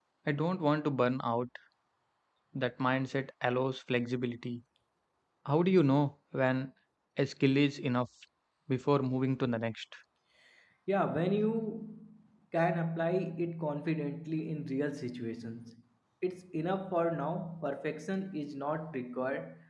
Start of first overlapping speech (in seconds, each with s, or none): none